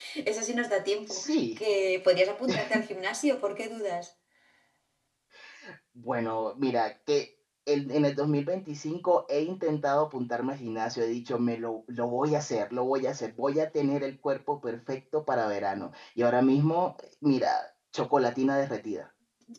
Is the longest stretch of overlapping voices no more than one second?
Yes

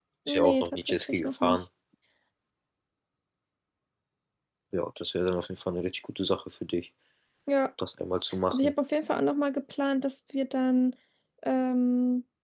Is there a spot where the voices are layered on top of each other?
Yes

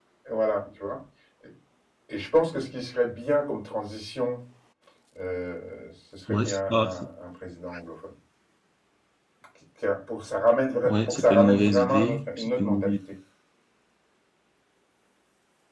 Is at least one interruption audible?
Yes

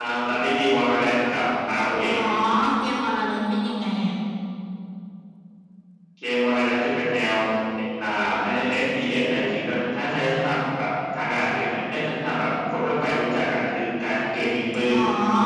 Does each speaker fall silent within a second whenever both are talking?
Yes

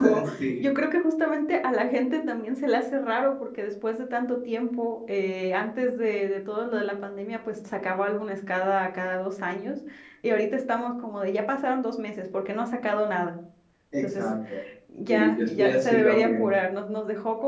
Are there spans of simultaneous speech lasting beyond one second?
Yes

